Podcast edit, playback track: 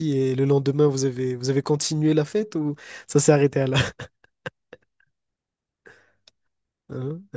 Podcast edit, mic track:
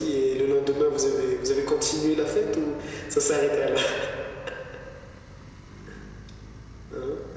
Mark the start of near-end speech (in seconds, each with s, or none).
none